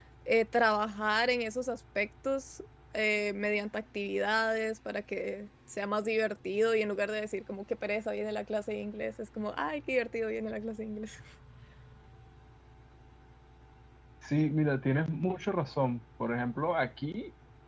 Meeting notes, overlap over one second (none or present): none